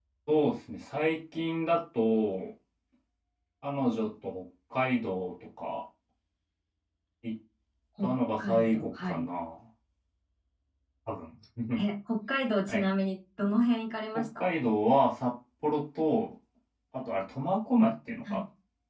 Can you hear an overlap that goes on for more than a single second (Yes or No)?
Yes